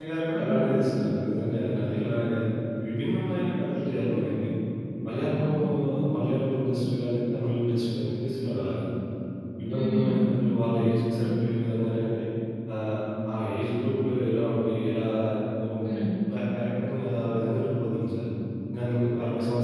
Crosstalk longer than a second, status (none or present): none